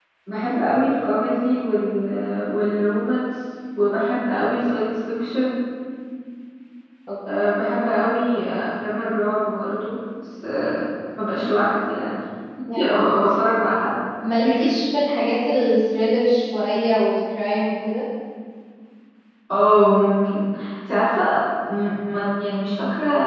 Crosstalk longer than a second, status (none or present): none